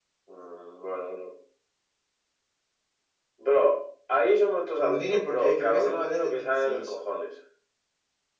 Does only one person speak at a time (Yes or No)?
No